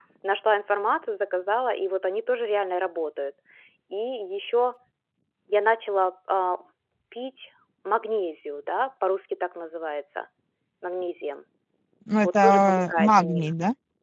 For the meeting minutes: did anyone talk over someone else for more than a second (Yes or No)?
Yes